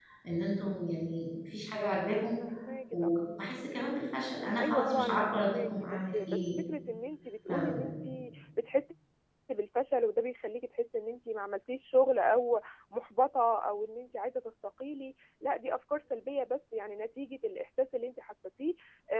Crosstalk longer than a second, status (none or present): present